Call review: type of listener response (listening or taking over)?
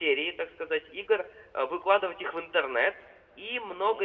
listening